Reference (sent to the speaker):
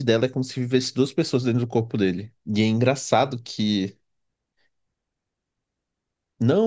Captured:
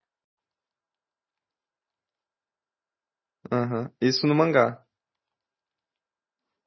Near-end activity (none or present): present